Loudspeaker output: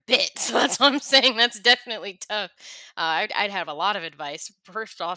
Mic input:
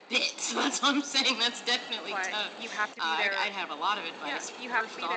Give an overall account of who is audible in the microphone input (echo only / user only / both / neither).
both